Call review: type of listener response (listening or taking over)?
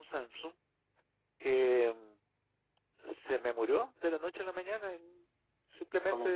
listening